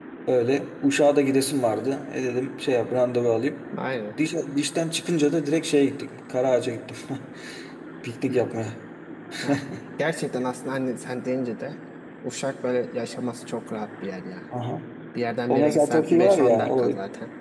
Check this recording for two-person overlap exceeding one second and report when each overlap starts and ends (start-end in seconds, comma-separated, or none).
15.5-16.9